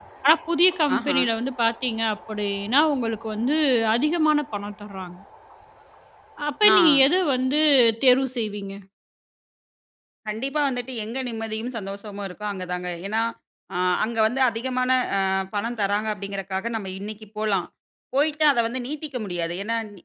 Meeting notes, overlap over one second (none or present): none